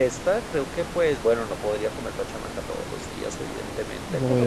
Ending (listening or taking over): listening